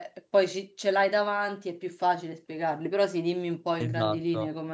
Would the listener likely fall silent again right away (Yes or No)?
No